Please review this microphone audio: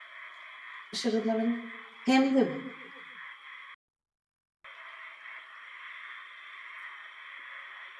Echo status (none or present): none